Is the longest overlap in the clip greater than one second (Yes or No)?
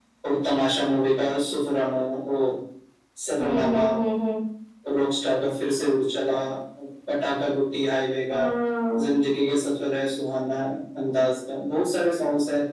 No